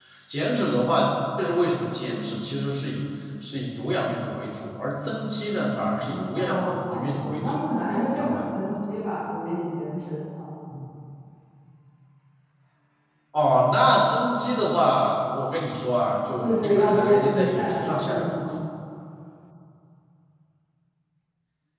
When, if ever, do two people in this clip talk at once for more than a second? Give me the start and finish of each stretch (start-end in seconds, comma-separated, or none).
6.1-7.6, 16.4-18.4